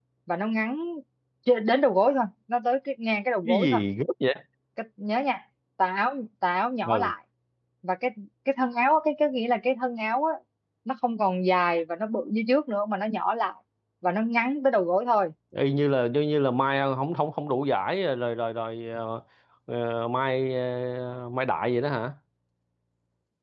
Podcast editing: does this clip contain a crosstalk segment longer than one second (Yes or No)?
No